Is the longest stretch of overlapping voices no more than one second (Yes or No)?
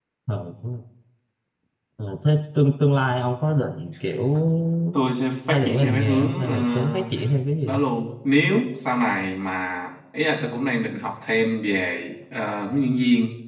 No